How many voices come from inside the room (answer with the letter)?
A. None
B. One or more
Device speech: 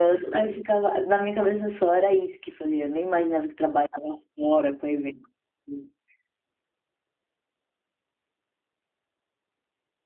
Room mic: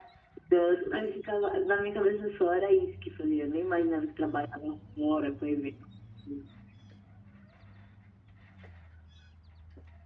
A